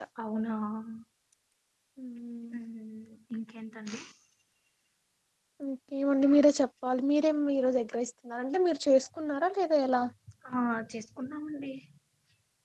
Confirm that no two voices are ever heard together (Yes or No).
Yes